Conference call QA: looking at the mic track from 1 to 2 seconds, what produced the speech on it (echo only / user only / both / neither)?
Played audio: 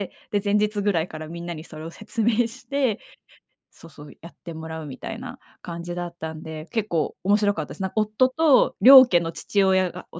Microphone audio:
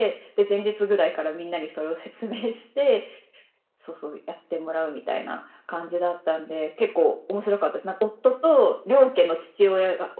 echo only